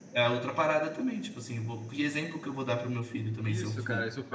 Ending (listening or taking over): taking over